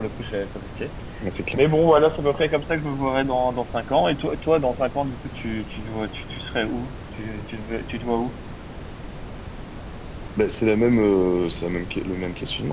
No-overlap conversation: Yes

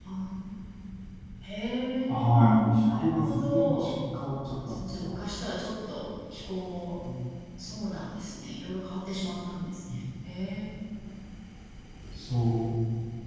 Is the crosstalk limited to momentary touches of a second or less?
No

